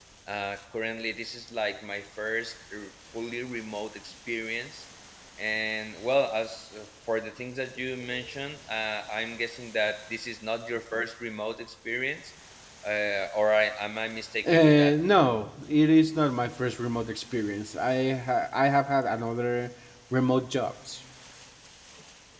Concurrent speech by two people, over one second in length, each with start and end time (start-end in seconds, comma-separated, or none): none